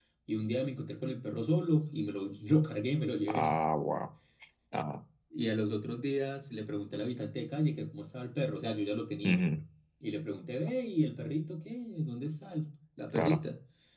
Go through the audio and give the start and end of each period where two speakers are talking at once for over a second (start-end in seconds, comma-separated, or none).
none